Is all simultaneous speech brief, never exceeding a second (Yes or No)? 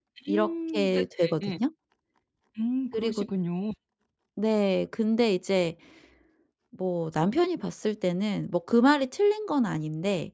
No